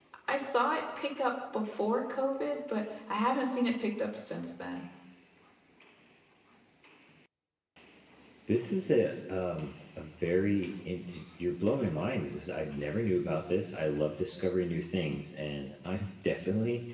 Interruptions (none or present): none